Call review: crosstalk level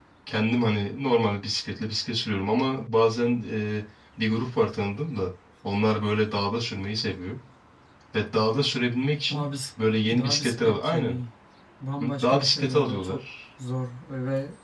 present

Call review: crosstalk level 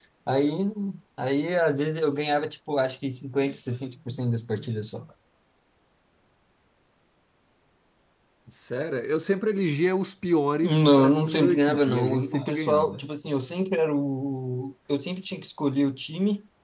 present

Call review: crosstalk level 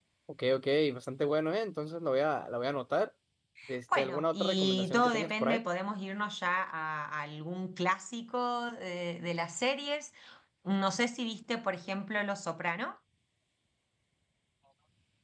present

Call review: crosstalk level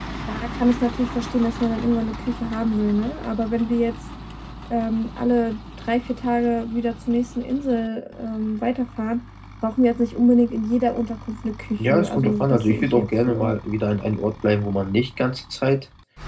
present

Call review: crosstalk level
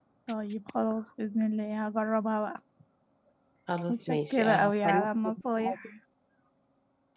present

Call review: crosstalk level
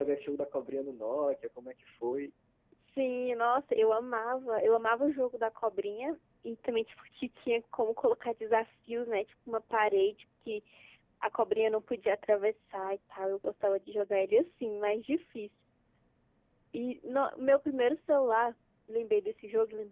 none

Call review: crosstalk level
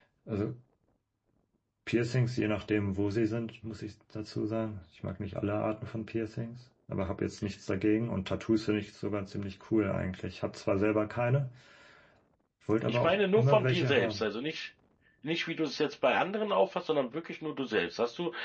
present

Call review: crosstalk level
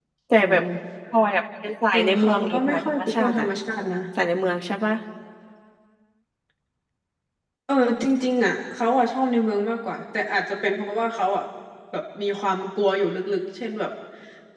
present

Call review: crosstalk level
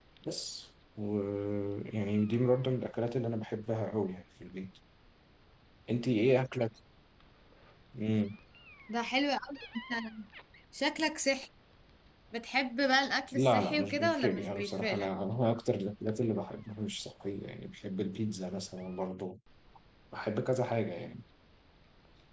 present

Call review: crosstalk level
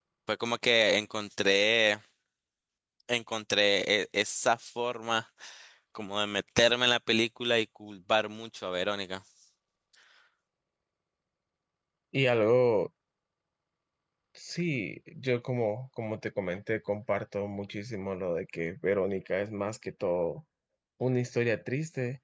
none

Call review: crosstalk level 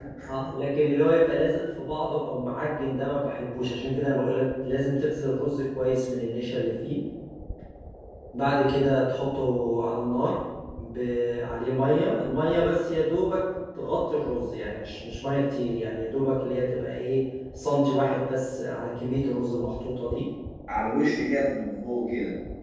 none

